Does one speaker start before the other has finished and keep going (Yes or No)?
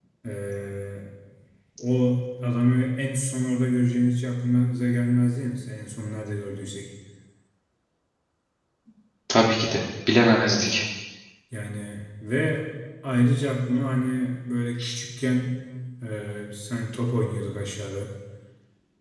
No